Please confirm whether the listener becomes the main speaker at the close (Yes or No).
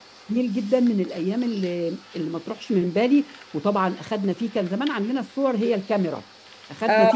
Yes